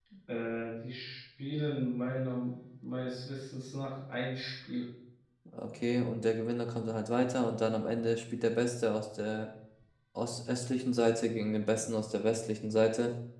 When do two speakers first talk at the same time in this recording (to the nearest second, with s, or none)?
none